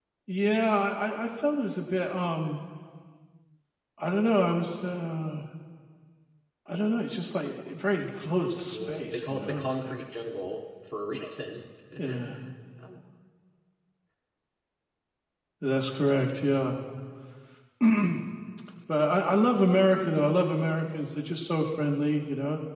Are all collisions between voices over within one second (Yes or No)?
No